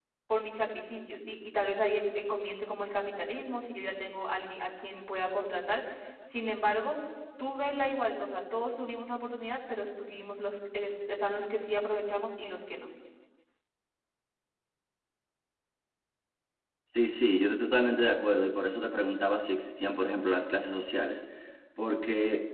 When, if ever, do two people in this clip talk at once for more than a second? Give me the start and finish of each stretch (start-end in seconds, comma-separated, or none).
none